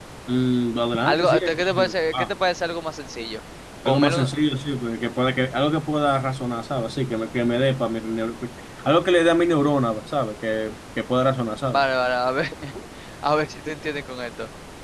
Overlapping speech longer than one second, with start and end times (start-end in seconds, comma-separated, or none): 1.0-2.3